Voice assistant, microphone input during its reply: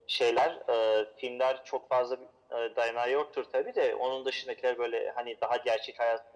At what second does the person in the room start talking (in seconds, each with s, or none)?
none